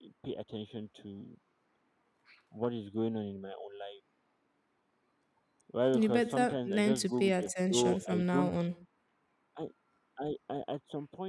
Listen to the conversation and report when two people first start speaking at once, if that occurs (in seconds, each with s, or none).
5.9 s